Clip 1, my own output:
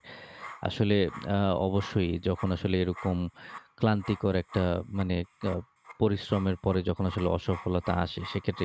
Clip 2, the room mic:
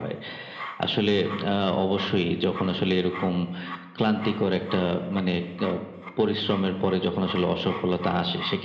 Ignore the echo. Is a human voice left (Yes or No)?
No